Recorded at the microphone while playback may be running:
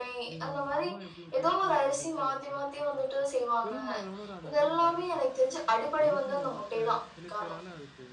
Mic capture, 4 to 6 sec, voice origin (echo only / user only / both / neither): both